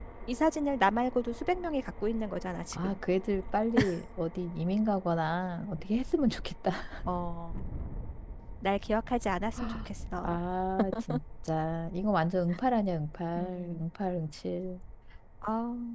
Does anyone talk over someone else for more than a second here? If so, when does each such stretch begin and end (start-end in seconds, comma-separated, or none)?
none